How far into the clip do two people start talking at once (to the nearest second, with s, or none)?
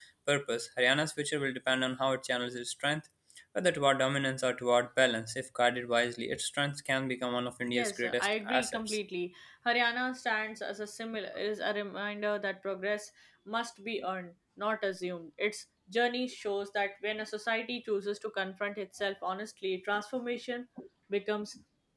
8 s